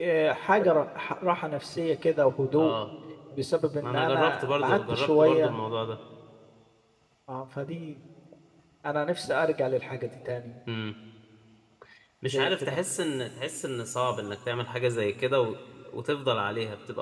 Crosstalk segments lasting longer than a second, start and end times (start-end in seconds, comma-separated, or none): 3.8-5.6